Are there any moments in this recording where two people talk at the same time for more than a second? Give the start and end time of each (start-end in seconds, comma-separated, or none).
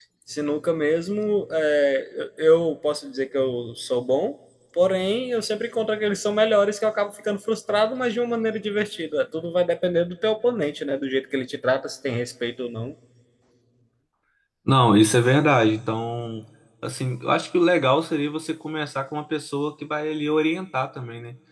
none